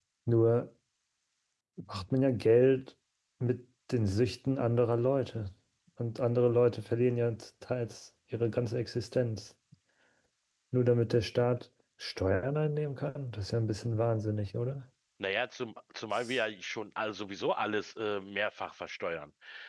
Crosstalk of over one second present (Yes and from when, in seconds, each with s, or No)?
No